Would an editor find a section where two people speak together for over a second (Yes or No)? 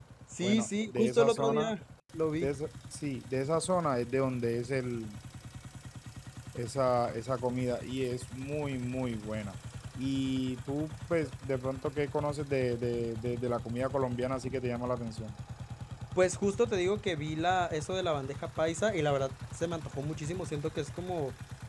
Yes